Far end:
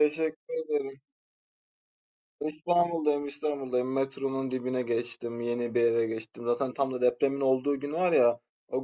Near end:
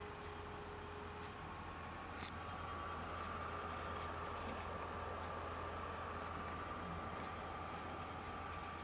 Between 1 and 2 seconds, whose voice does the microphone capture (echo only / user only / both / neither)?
neither